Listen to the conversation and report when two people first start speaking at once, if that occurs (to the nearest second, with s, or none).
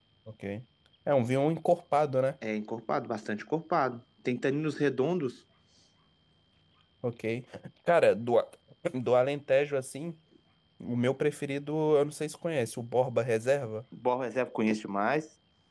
none